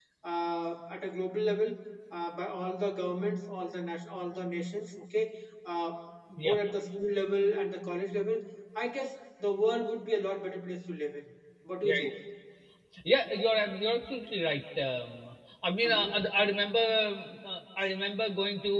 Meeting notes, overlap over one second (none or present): none